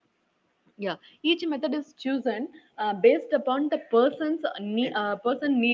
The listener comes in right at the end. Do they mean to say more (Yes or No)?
No